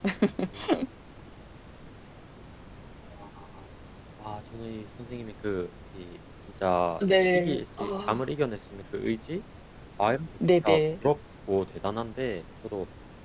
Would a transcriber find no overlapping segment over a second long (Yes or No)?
No